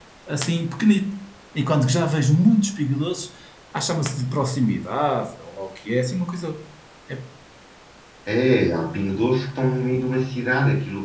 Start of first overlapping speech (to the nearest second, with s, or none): none